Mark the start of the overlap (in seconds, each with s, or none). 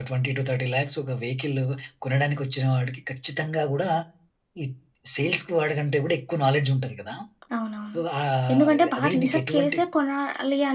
8.5 s